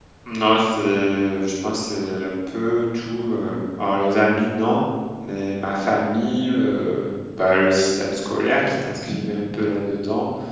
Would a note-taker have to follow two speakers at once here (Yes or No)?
No